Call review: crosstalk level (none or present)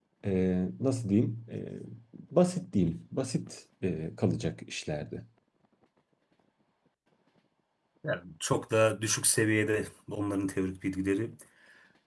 none